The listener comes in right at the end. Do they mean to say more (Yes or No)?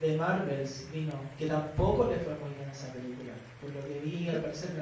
No